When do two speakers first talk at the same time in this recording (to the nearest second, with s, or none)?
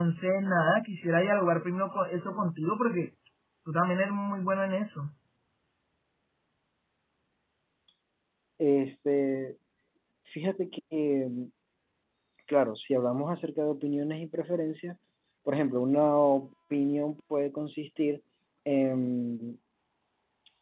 none